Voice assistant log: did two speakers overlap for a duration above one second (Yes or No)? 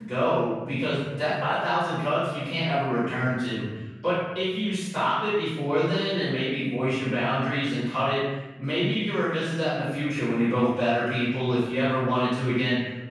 No